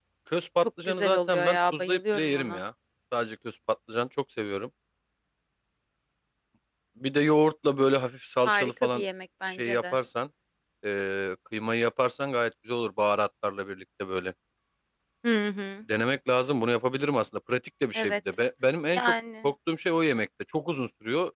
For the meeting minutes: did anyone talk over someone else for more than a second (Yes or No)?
Yes